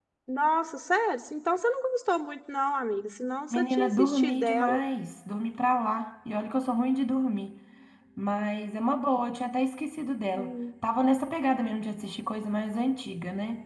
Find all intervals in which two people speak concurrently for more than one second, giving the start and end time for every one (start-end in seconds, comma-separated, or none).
3.5-4.8